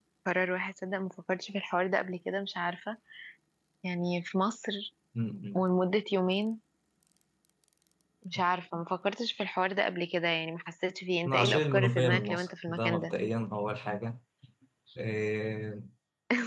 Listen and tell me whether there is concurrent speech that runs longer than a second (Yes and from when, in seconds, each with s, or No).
Yes, from 11.2 s